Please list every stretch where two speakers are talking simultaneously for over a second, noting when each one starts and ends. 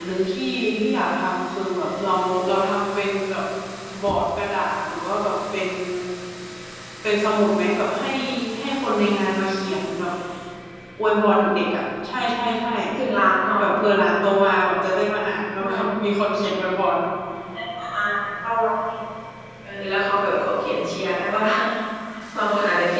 none

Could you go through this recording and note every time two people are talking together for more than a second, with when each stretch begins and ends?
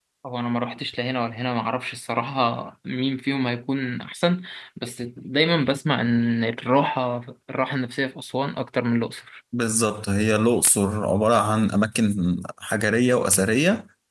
none

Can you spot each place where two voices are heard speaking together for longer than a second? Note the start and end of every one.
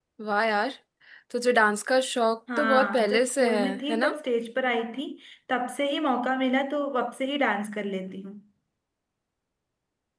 2.6-4.1

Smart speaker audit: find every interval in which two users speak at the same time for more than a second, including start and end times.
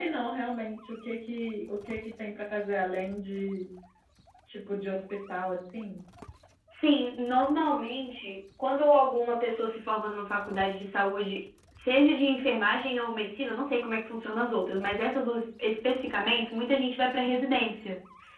none

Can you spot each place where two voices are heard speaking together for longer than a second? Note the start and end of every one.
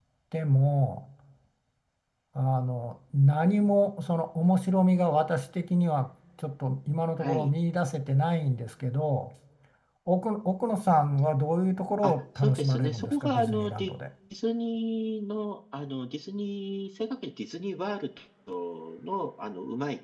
12.0-13.9

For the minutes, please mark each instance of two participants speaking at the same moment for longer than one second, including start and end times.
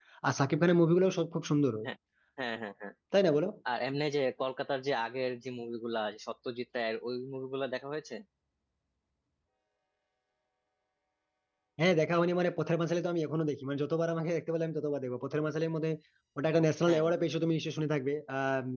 none

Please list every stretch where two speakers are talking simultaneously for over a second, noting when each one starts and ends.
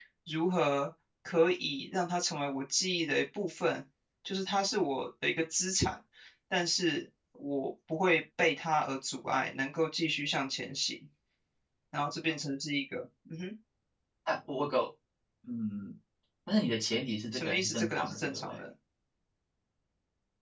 17.3-18.6

